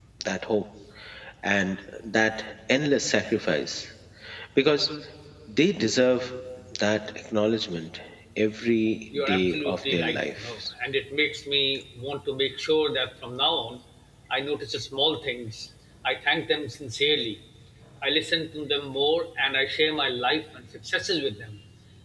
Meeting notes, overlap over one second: present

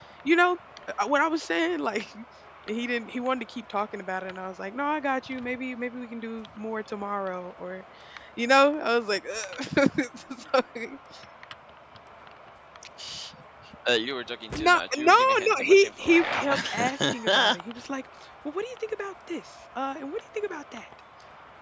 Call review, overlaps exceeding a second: present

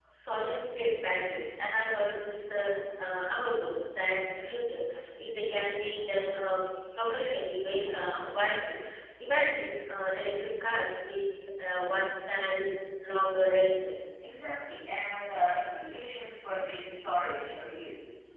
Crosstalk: none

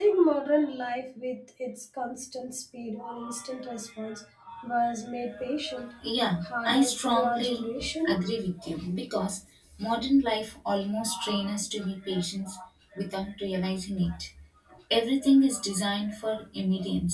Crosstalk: present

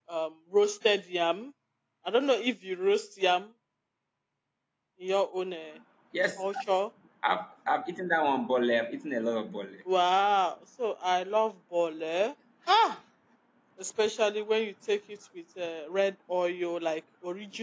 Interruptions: none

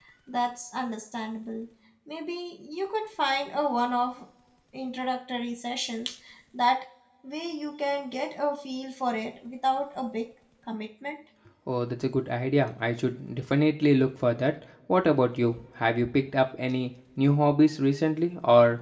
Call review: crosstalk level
none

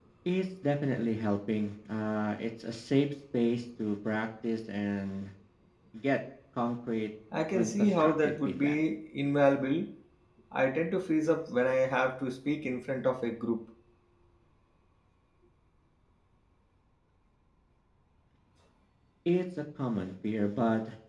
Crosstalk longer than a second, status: present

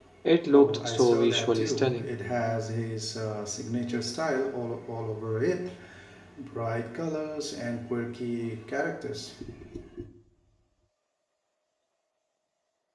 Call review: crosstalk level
present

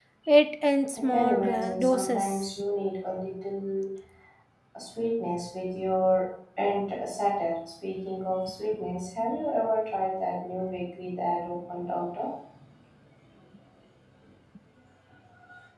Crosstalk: present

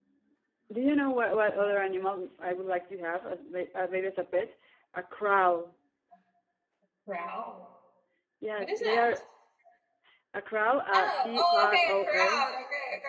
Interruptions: present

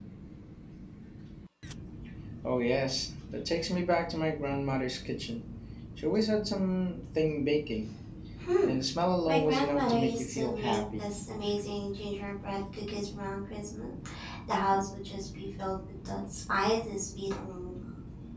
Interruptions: present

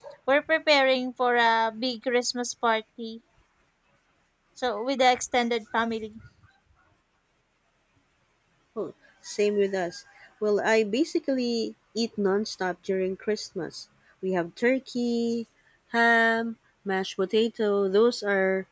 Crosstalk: none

